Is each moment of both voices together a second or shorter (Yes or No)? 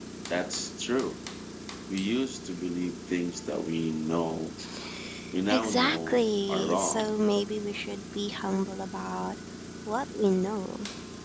No